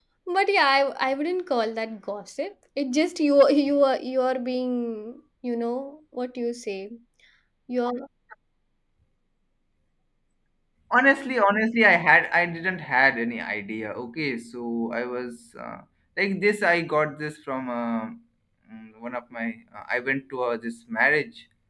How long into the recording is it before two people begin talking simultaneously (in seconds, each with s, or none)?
none